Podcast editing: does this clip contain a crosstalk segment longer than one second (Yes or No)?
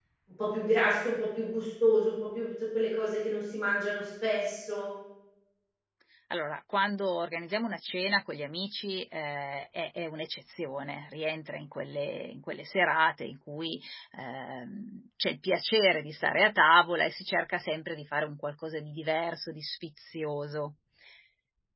No